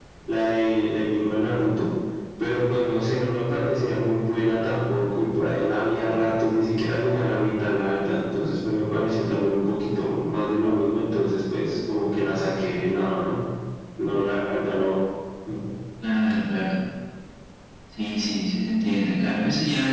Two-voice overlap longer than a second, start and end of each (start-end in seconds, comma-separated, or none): none